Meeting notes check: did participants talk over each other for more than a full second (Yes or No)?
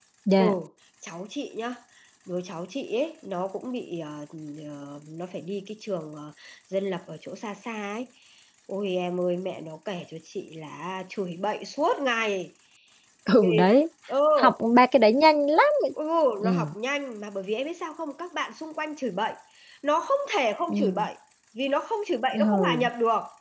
No